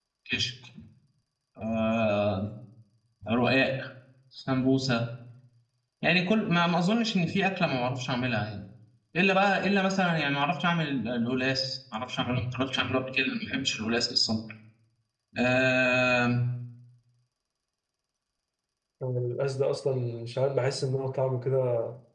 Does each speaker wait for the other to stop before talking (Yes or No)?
Yes